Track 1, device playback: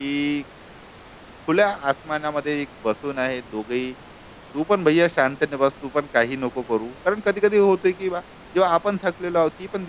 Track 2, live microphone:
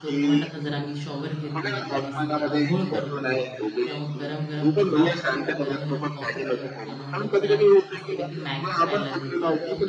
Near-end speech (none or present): present